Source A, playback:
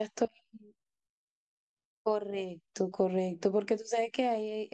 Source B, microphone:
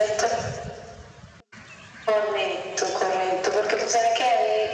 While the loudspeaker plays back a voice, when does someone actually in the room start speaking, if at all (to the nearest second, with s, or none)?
none